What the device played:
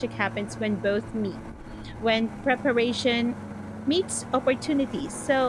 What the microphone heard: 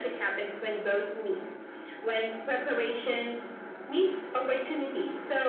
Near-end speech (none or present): none